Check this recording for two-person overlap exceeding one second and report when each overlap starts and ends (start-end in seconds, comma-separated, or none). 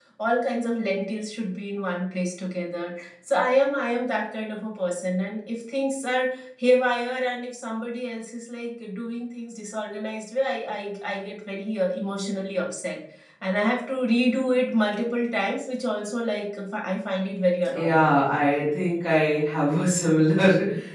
none